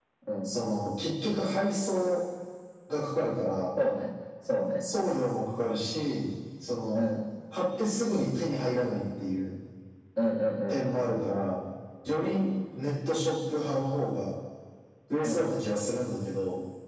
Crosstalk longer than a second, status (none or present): none